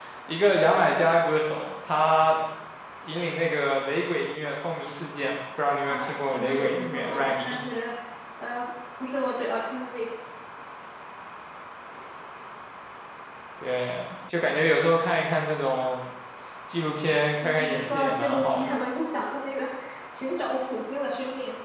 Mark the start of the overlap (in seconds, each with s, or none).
5.9 s